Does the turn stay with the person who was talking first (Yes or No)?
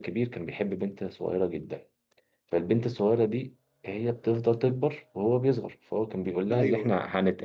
Yes